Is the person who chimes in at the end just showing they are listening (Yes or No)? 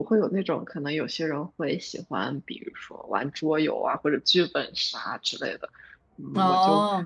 Yes